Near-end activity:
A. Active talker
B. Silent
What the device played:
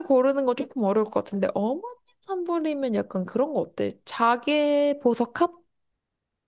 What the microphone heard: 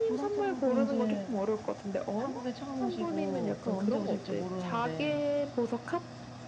A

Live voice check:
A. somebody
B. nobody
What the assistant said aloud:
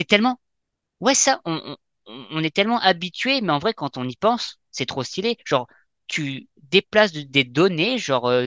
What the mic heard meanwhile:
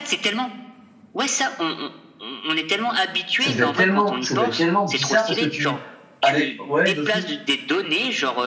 A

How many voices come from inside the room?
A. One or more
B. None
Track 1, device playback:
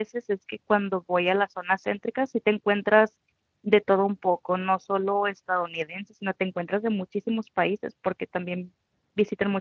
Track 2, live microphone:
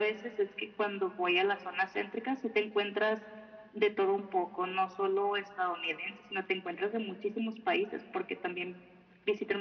B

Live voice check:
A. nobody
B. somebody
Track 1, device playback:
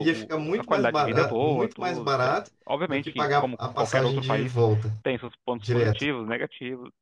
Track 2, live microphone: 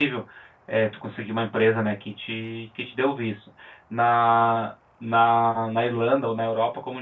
B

